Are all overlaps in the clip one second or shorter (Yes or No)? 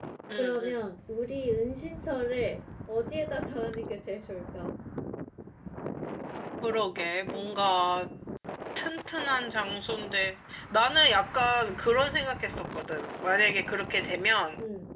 Yes